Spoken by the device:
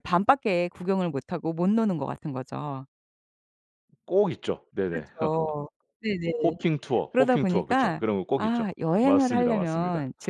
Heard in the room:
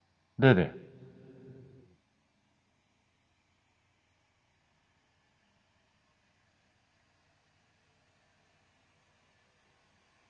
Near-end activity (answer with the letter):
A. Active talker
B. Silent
A